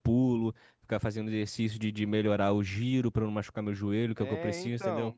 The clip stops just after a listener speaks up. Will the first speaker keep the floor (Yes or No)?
No